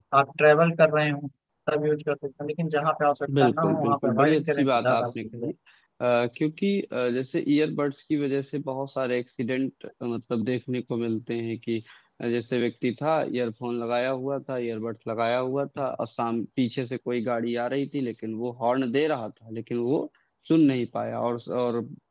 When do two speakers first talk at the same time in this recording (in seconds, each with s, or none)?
3.3 s